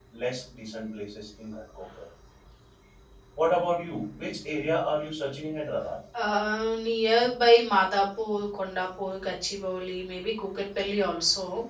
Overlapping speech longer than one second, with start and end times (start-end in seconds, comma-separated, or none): none